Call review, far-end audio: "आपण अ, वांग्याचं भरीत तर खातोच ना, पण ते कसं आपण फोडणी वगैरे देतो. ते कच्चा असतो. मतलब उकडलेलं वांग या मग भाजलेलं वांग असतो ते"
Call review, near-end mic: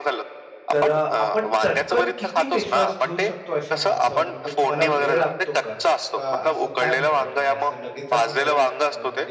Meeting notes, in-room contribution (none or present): present